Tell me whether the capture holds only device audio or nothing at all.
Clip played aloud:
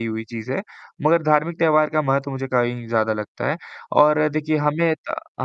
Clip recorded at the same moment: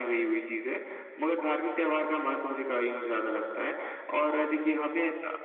Yes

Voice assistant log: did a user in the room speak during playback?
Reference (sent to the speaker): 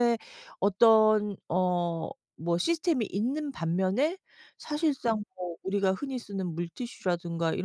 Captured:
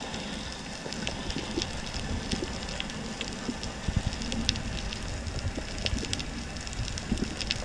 No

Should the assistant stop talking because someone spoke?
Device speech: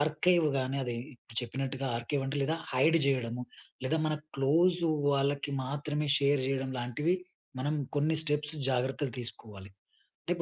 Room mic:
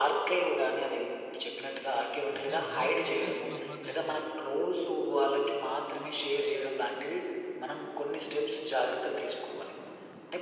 Yes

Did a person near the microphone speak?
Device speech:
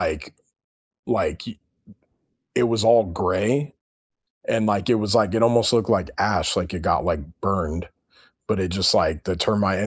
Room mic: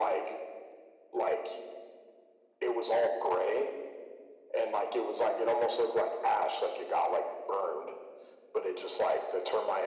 No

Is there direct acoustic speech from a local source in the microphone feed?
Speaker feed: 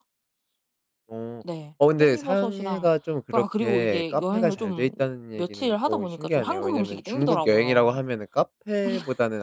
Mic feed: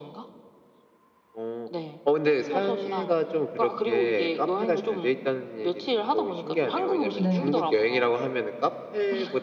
Yes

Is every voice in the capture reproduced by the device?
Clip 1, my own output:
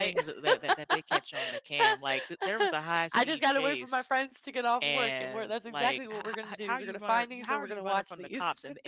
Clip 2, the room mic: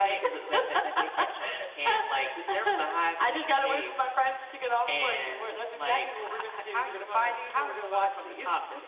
Yes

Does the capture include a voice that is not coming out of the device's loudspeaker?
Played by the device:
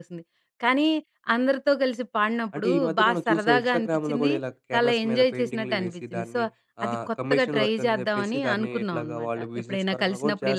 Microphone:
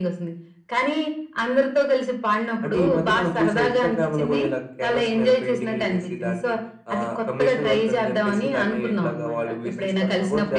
No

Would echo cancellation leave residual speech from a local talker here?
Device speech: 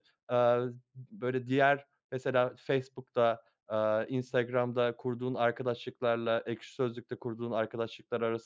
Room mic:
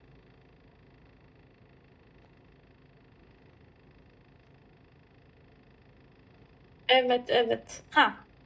Yes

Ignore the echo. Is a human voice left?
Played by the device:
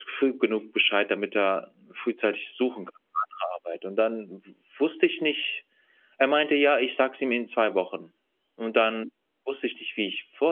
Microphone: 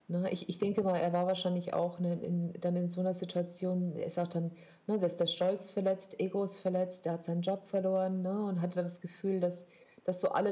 Yes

